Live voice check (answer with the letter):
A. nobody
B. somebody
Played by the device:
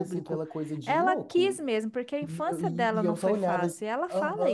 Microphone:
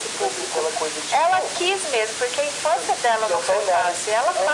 A